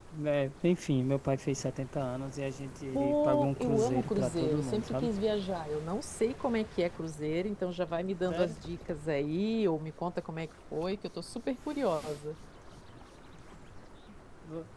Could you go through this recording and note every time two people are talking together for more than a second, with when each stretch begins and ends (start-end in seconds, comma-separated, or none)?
2.9-5.1